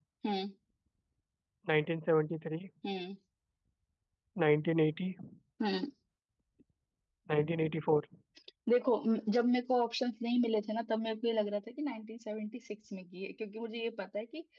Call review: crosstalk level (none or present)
none